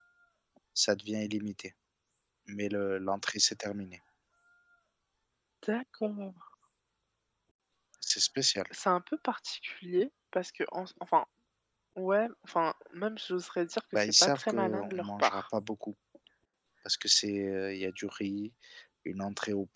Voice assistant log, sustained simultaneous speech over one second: present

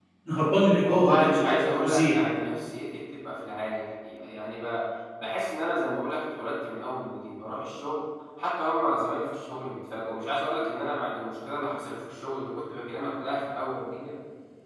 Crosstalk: present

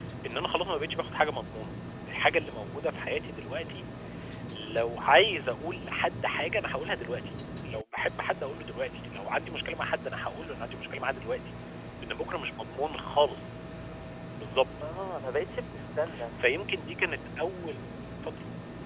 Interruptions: none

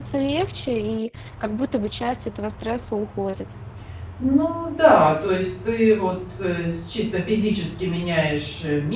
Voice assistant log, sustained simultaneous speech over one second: none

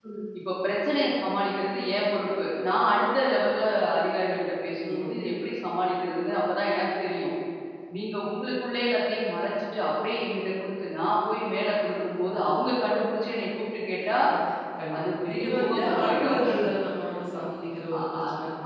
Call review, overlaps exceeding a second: present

